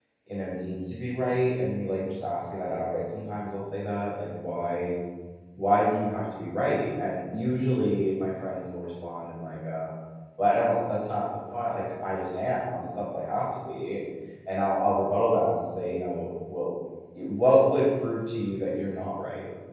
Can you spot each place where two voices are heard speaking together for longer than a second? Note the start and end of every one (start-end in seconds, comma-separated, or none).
none